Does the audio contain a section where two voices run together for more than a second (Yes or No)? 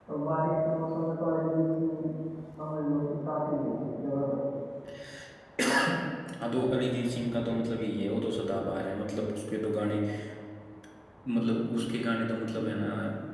No